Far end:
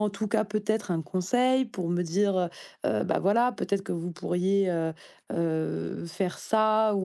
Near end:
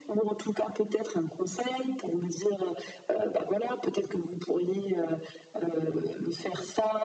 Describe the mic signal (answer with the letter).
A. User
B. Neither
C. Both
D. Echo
D